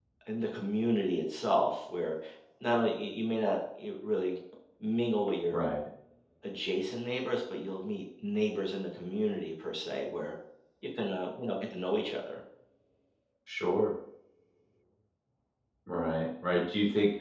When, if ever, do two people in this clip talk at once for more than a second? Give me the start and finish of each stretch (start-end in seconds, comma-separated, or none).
none